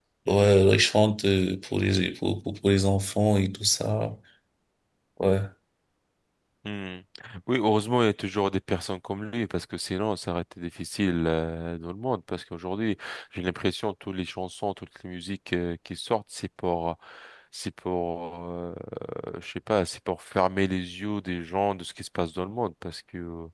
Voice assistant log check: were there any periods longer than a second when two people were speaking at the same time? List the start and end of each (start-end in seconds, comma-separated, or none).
none